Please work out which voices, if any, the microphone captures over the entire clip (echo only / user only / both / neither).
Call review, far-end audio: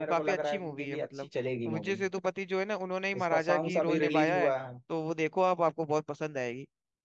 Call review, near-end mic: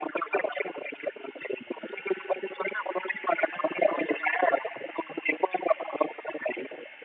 echo only